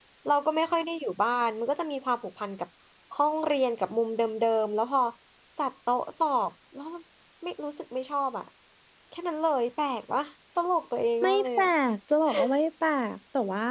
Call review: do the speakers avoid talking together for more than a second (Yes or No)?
Yes